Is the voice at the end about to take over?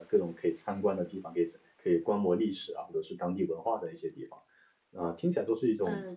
No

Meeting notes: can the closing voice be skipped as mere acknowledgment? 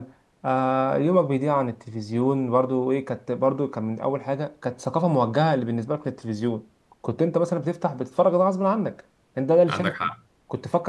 Yes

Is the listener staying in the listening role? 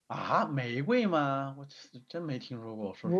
No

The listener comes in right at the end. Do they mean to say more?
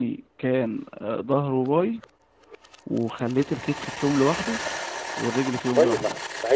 Yes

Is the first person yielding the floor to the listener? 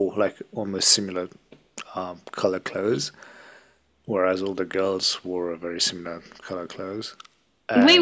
Yes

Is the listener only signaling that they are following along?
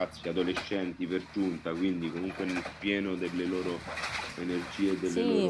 No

